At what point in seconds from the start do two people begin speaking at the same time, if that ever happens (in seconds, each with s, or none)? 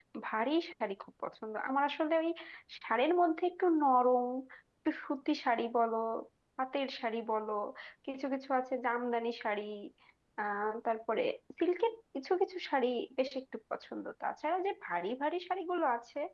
none